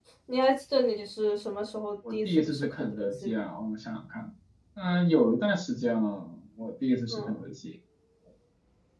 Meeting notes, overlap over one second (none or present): present